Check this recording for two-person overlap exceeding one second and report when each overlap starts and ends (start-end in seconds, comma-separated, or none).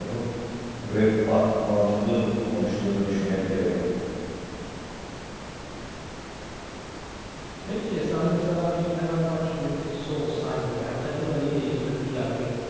none